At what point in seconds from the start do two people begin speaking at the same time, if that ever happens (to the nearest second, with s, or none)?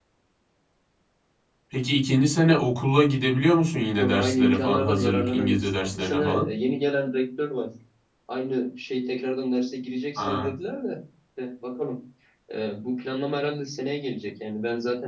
4 s